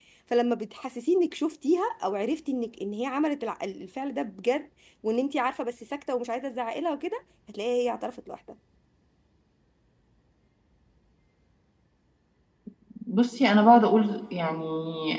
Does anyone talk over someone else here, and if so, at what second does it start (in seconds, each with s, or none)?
none